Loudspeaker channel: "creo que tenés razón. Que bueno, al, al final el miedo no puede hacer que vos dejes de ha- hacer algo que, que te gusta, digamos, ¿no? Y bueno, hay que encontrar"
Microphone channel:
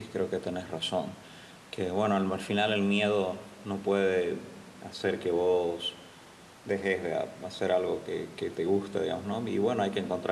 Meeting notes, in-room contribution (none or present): none